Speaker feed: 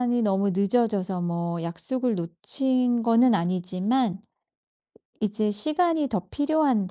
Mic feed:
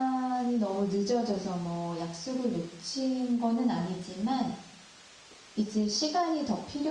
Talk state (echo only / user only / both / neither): echo only